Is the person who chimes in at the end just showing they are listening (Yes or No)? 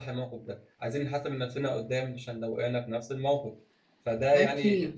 Yes